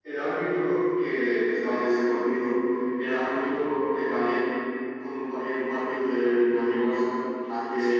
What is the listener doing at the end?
listening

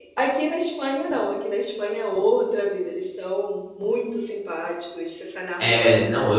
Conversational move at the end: taking over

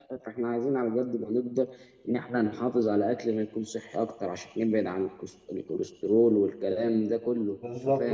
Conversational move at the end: taking over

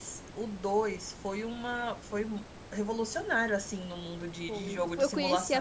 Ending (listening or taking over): taking over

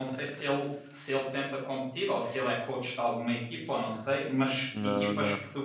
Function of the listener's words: listening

